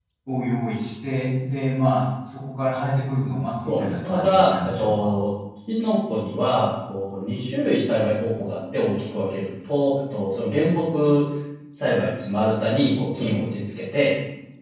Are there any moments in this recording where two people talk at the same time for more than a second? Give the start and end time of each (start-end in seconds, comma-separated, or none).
3.7-5.1